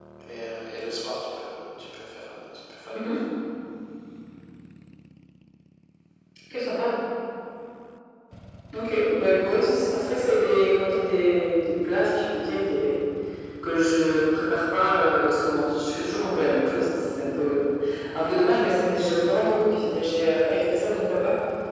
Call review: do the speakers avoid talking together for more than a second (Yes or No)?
Yes